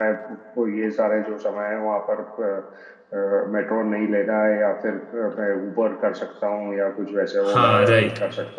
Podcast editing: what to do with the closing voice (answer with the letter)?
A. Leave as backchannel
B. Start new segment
B